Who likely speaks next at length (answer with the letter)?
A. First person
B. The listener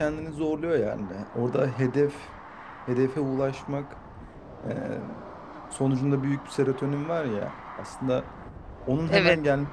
A